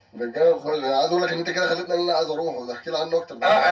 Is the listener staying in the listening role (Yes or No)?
No